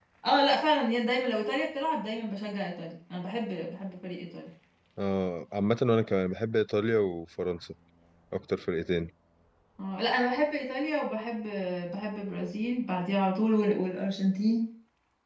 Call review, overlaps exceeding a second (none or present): none